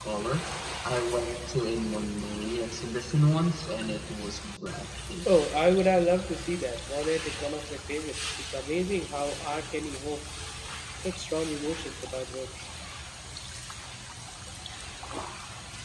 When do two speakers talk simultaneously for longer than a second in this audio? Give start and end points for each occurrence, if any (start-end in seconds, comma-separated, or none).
none